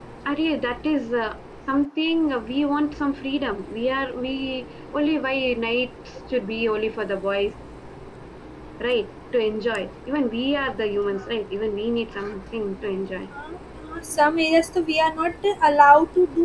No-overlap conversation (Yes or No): Yes